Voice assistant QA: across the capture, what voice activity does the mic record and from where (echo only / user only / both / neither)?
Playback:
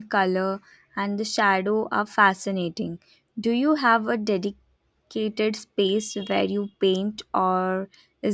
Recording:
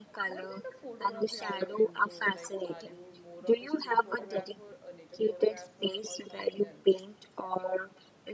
both